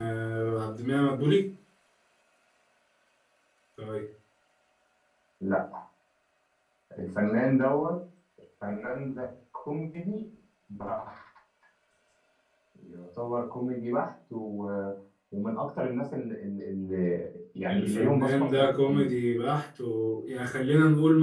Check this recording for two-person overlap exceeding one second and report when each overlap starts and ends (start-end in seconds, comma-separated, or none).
17.7-19.1